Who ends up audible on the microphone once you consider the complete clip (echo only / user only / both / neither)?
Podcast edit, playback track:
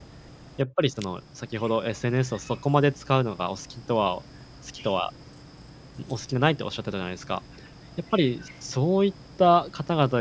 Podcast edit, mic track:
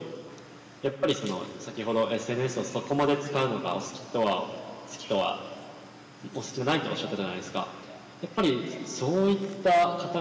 echo only